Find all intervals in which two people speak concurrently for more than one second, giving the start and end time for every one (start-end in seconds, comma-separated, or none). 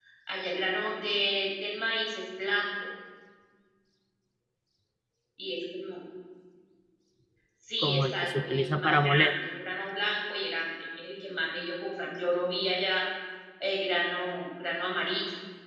7.8-9.4